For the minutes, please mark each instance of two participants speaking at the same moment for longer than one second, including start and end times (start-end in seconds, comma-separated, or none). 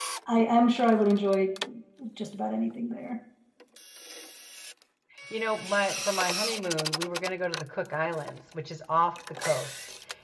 none